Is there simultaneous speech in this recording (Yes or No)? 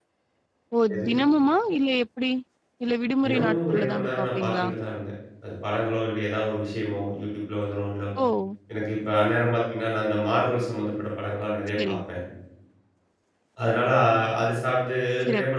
Yes